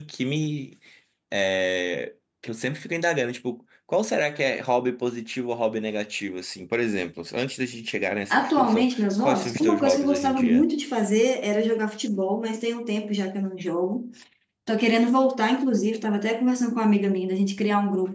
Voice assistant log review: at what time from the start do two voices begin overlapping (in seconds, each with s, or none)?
8.3 s